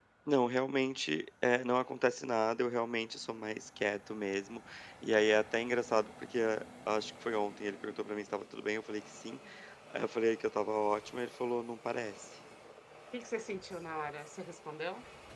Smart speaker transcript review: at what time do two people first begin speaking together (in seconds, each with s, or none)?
none